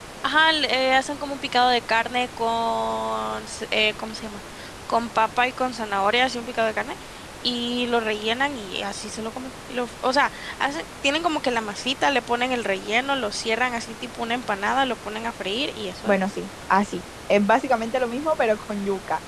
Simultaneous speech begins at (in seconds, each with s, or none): none